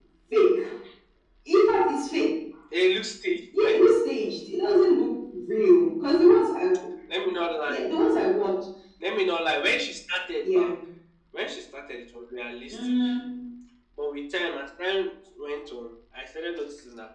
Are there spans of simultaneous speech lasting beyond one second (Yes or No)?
No